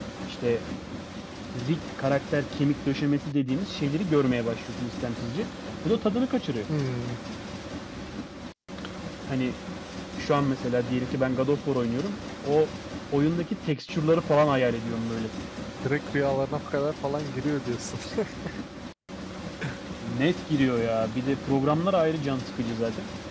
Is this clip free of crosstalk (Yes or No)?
Yes